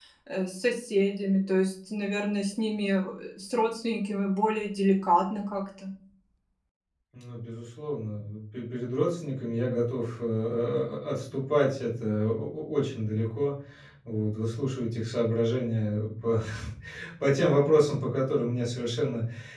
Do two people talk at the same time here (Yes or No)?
No